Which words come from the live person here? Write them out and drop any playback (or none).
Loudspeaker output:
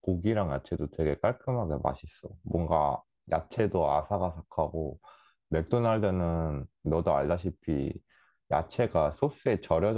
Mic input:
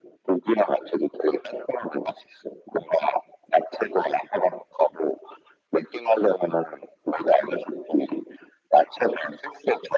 none